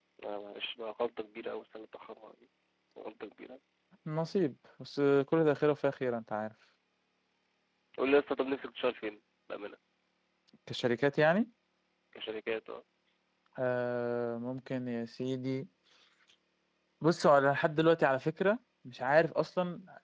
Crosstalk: none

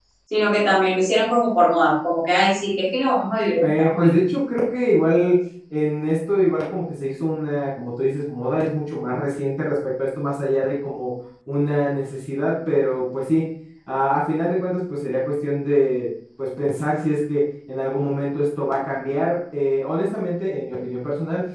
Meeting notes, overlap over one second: none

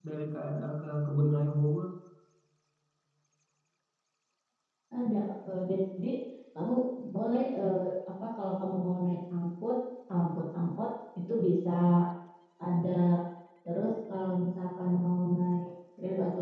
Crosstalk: none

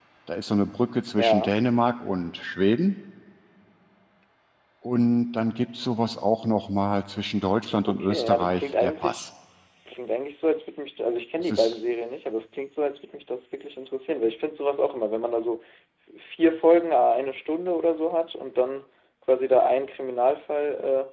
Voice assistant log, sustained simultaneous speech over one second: present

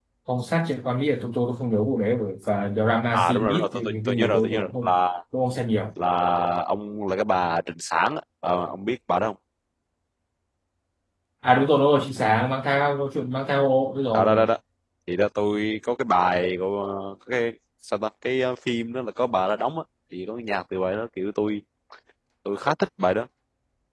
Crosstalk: present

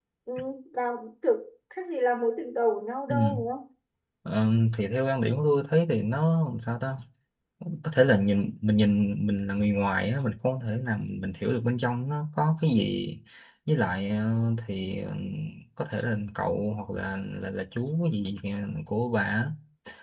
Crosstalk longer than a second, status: none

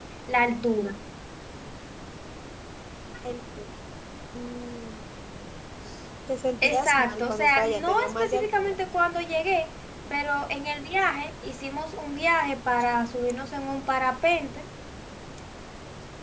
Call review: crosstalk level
present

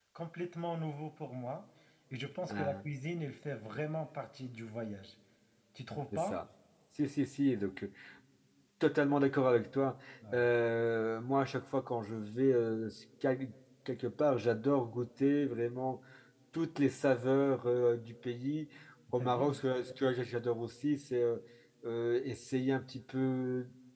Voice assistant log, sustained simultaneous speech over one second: none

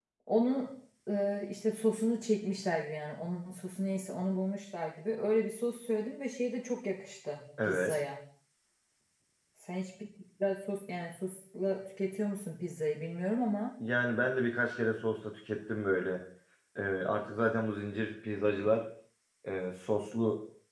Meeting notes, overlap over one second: none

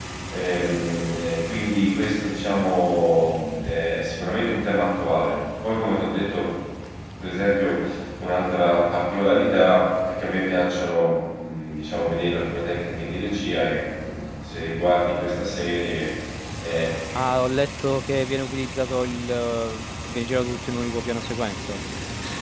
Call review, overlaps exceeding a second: none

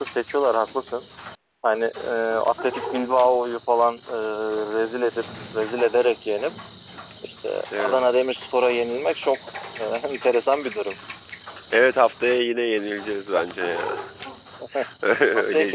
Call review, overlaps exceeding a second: none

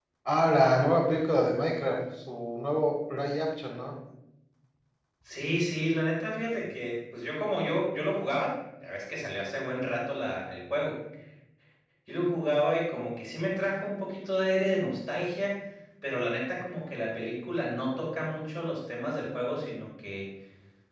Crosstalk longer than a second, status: none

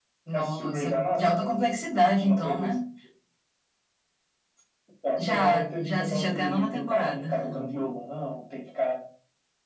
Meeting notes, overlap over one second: present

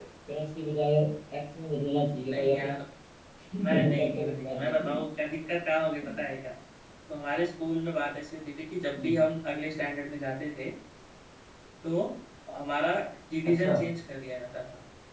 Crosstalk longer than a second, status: present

